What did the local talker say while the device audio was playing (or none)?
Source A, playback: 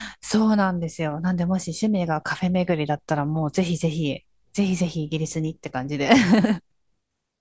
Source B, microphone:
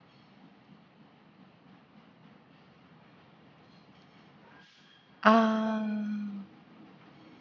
あ